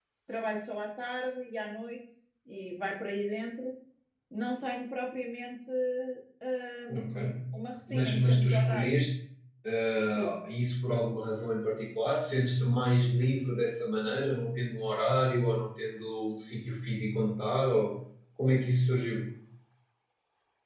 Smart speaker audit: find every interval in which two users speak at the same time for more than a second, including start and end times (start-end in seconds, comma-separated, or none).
7.9-9.1